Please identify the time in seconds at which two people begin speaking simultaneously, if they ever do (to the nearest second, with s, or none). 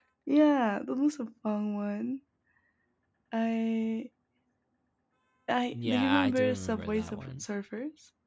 6 s